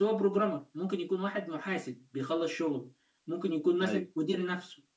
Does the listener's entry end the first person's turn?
No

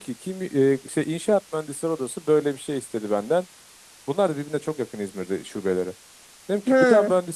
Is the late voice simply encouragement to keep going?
Yes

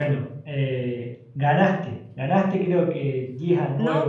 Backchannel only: No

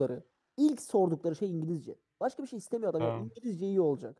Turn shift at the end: No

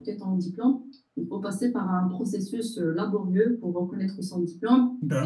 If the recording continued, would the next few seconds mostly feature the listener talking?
No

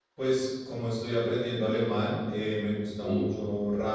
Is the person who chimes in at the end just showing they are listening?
Yes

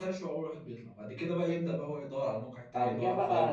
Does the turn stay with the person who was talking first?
No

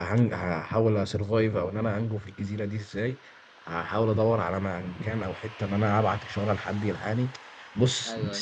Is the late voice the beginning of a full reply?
No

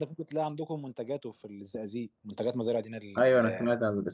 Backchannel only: No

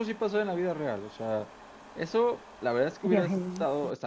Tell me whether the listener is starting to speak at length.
No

